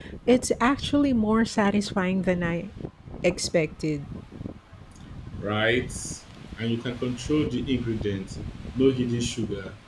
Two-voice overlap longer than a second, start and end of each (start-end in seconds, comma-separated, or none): none